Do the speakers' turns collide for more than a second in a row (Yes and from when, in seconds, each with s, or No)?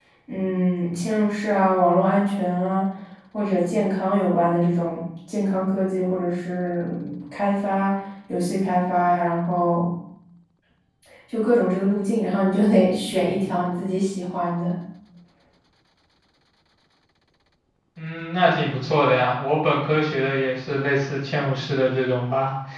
No